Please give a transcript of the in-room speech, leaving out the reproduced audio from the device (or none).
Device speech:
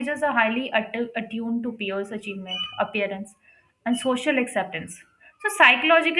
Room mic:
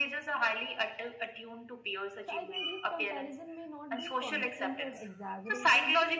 So I think these comparison may not be constant or exaggerated